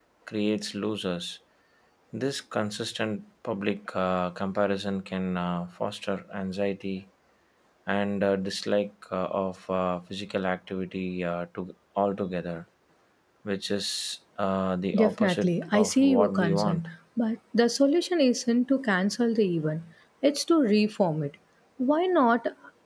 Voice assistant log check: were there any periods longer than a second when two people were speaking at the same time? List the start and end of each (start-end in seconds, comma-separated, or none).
15.0-16.9